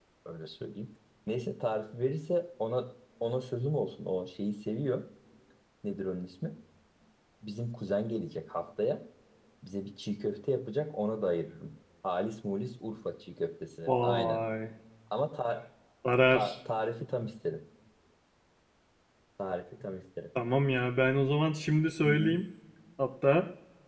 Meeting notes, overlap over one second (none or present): none